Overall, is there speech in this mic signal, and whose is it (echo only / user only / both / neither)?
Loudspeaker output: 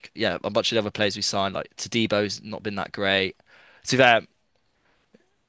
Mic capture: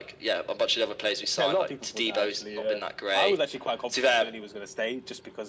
both